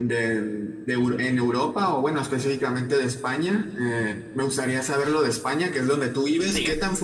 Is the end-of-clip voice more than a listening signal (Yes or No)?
No